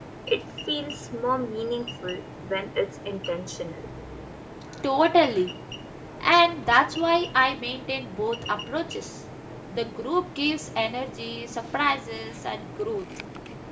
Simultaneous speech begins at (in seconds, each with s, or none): none